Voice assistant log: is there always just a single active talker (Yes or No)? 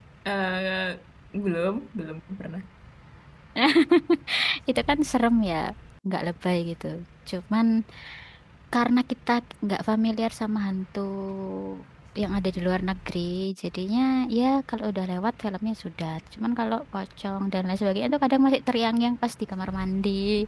Yes